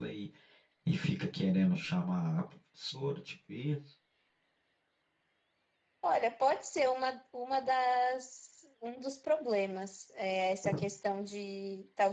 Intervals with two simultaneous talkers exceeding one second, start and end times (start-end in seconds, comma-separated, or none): none